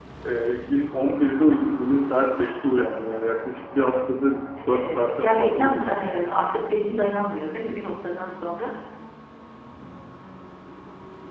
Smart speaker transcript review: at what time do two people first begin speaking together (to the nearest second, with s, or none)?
5 s